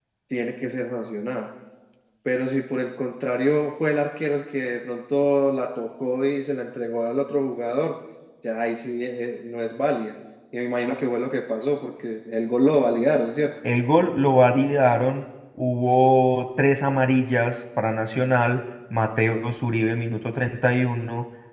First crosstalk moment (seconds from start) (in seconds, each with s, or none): none